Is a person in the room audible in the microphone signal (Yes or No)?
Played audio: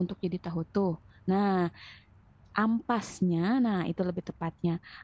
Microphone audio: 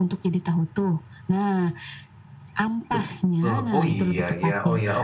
Yes